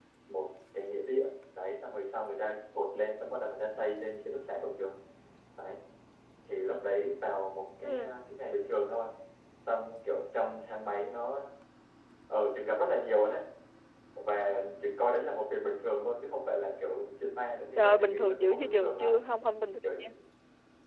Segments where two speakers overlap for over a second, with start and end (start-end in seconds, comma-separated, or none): 17.8-19.2